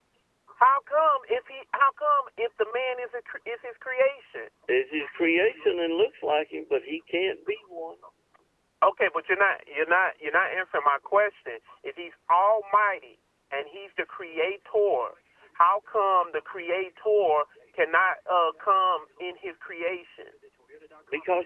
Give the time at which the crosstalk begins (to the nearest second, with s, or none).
none